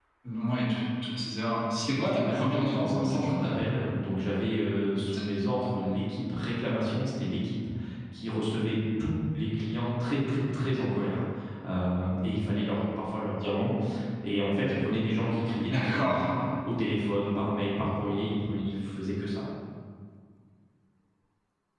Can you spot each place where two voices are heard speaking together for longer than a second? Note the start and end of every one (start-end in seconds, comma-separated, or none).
1.7-3.5